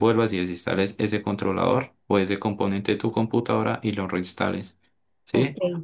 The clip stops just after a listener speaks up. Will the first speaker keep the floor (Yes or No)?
Yes